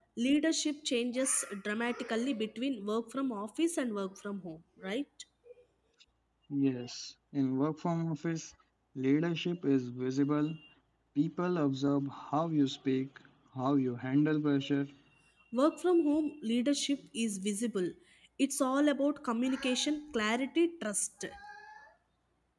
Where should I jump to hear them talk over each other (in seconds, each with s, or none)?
none